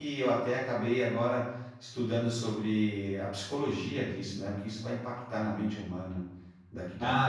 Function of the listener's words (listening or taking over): taking over